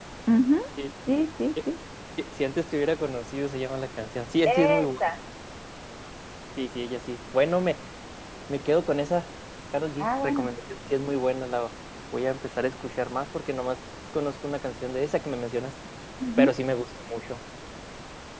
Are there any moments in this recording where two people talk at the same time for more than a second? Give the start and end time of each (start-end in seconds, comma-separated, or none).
none